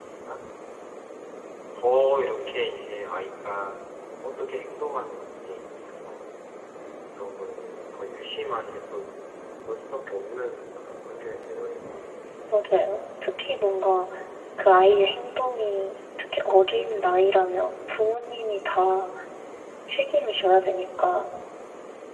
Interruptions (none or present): none